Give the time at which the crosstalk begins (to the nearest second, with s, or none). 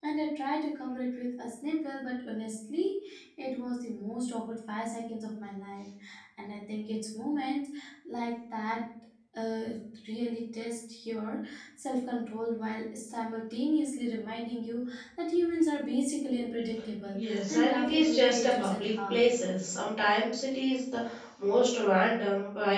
17 s